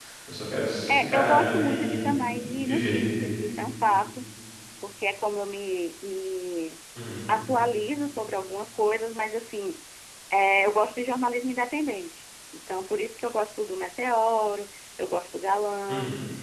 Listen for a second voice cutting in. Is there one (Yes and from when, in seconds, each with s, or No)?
Yes, from 0.9 s